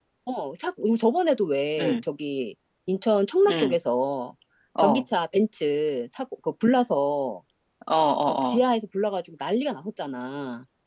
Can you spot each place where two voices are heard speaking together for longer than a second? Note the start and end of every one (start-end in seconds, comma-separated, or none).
none